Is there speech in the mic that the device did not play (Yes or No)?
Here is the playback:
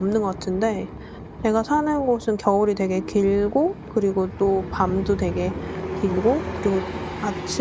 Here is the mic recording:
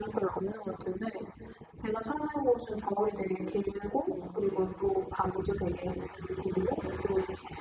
Yes